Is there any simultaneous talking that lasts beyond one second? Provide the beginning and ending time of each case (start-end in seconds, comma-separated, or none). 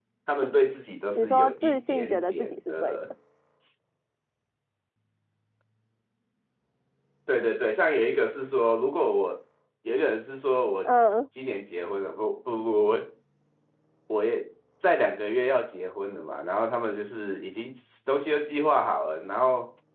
1.1-3.0